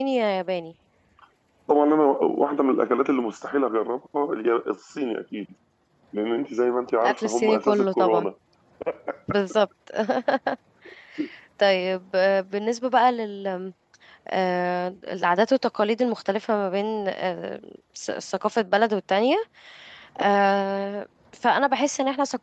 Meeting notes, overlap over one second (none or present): present